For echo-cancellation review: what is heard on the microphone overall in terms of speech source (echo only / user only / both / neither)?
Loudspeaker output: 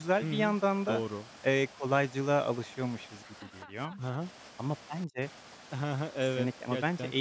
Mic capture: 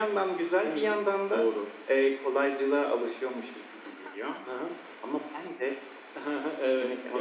echo only